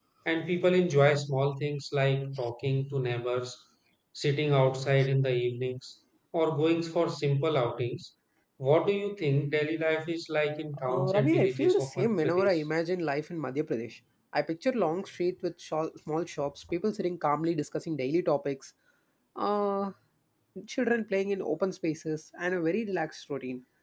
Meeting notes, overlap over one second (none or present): present